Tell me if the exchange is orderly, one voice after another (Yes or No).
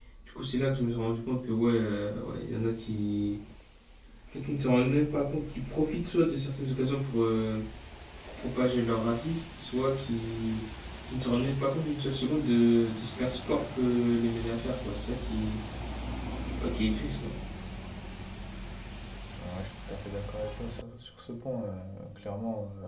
Yes